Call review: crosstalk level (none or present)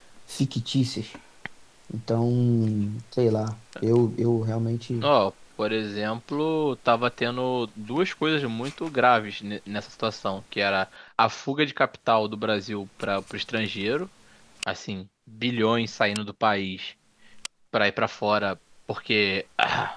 none